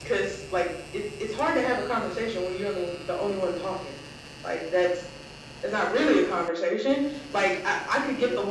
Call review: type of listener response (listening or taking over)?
listening